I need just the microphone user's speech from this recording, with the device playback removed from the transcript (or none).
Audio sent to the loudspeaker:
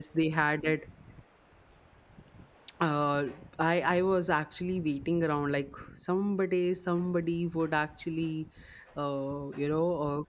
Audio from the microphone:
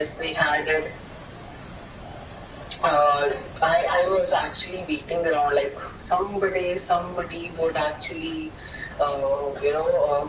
none